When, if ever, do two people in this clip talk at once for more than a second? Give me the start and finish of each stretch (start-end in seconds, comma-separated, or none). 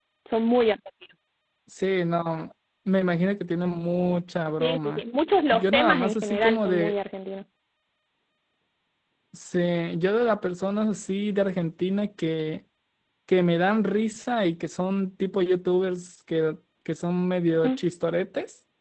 5.5-6.9